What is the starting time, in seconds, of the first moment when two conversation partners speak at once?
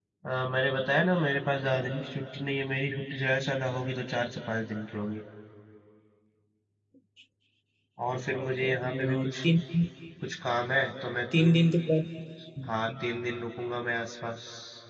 8.1 s

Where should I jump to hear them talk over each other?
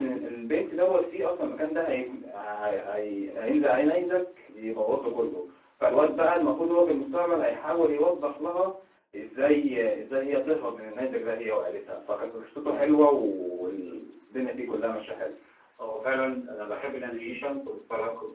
none

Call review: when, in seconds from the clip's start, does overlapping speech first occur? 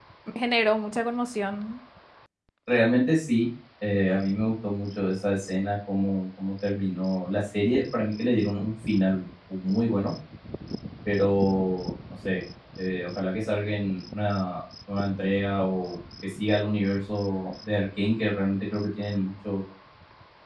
none

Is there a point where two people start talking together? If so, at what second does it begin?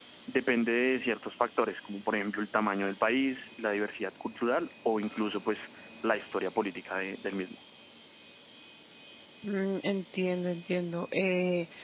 none

